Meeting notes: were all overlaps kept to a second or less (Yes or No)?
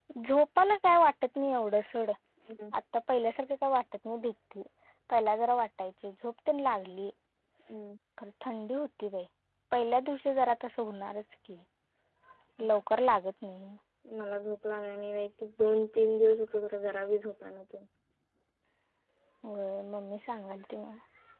Yes